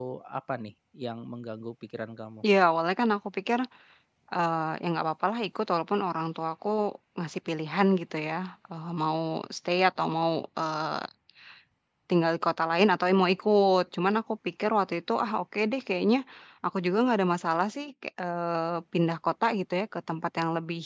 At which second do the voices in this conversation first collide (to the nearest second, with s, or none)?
none